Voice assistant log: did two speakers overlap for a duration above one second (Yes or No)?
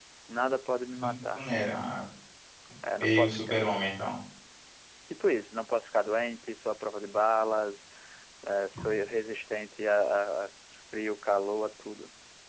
No